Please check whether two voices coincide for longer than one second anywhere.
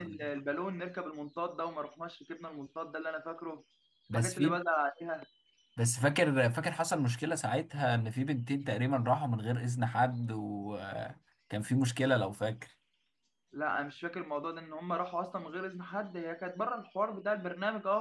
No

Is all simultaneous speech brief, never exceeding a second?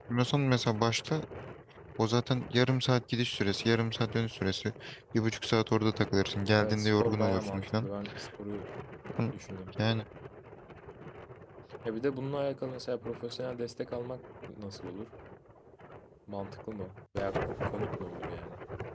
No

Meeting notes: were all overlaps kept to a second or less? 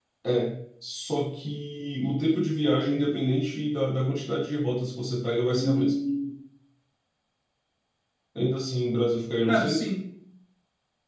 Yes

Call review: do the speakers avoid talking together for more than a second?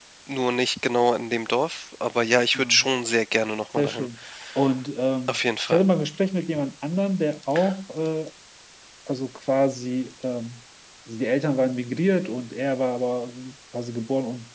Yes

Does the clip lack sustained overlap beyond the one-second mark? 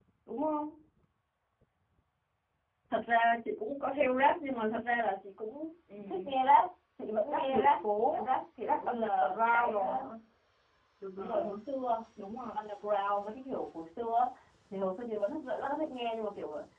No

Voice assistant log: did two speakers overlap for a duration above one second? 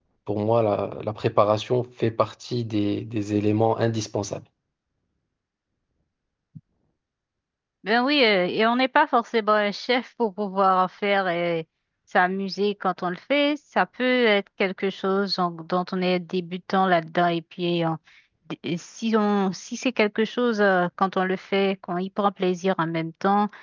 No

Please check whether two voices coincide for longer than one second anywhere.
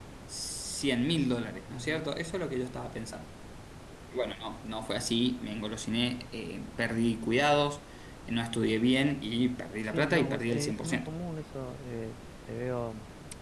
Yes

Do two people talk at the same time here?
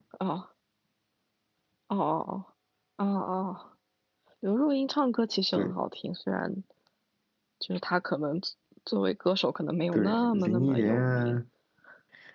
Yes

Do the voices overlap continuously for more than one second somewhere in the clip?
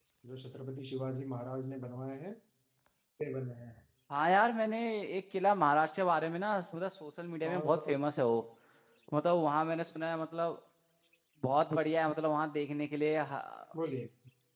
No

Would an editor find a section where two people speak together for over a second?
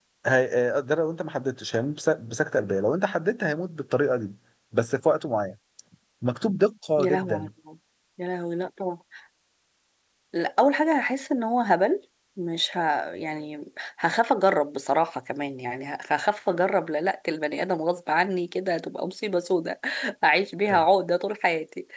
No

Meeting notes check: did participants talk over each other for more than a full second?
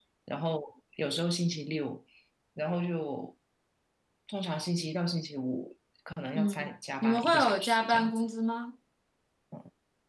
Yes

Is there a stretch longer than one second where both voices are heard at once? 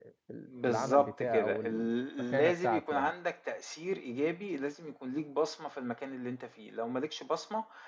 Yes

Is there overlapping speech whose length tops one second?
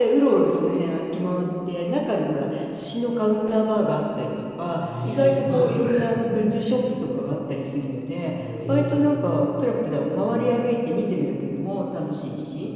Yes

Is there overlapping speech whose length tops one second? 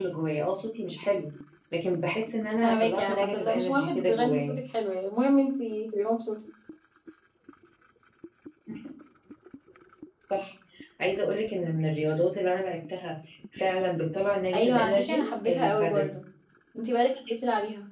Yes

